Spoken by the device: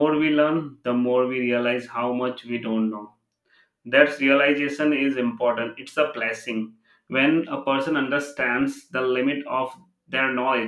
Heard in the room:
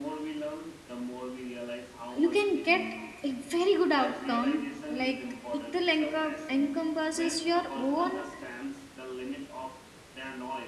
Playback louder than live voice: No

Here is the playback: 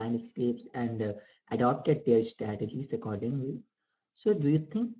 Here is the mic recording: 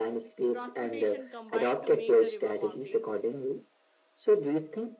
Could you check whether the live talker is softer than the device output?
Yes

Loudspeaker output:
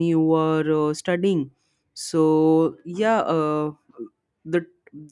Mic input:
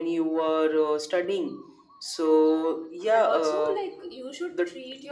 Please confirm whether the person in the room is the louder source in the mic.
No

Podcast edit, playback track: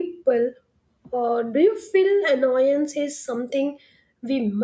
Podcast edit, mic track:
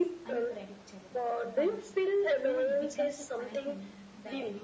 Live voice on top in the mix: No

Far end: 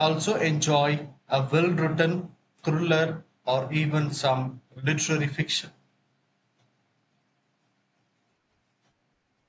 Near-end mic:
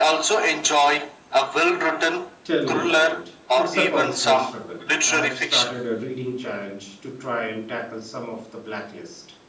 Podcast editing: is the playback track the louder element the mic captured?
Yes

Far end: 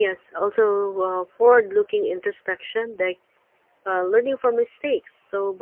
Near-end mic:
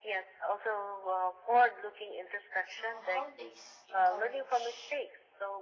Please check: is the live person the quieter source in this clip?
Yes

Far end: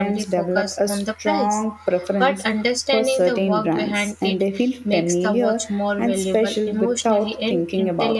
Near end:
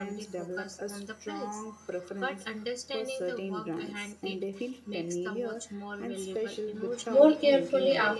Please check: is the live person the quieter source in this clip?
No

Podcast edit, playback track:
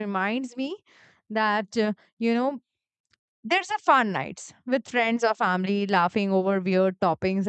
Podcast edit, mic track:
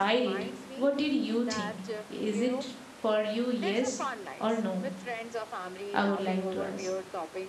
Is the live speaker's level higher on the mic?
Yes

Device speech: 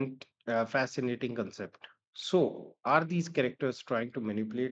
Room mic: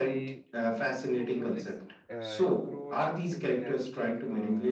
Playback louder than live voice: Yes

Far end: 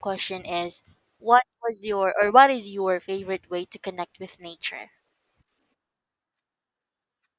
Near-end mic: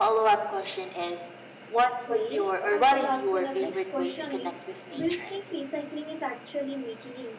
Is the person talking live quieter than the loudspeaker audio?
Yes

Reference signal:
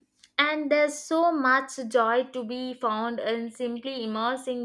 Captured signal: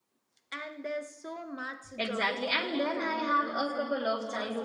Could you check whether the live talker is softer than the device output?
No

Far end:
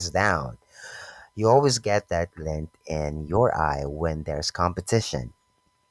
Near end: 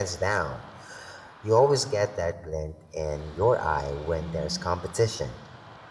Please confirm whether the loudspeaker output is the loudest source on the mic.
Yes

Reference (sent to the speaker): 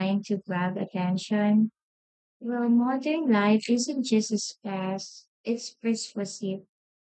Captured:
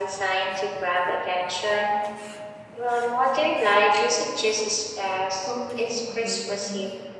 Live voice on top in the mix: No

